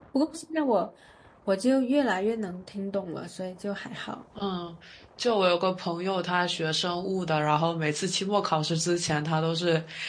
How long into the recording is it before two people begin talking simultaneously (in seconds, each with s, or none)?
none